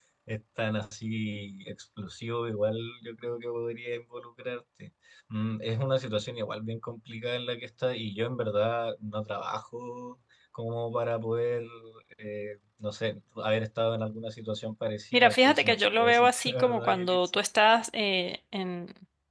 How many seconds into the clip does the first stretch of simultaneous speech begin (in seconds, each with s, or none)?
15.1 s